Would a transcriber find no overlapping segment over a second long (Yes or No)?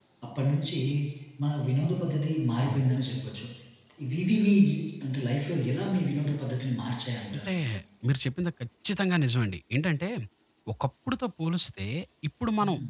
Yes